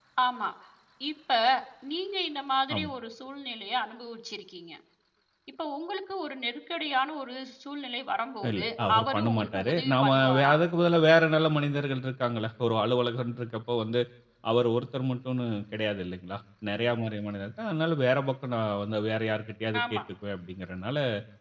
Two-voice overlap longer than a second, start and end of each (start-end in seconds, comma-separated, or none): 8.5-10.5